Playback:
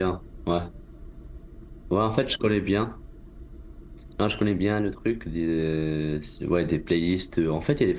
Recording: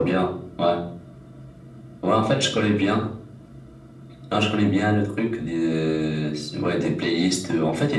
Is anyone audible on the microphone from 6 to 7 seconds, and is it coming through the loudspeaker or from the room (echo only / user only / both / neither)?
echo only